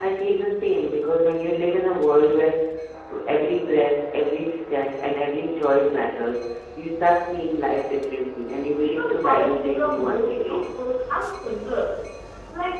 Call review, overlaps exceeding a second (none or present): present